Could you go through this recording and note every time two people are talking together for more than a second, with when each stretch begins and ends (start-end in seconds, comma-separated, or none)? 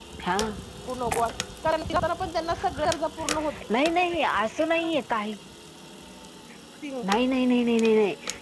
none